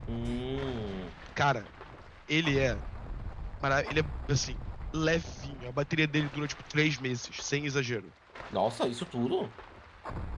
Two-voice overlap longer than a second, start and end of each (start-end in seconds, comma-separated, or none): none